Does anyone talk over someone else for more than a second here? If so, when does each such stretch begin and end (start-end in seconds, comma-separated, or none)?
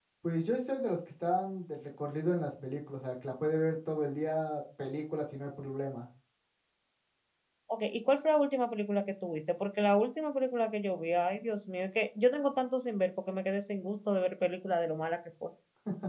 none